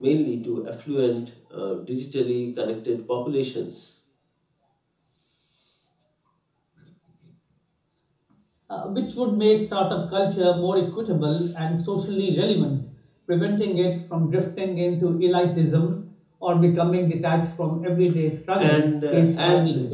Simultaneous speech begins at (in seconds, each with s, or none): 18.6 s